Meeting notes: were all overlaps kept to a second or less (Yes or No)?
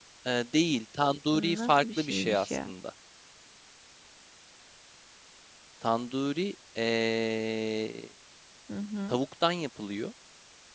No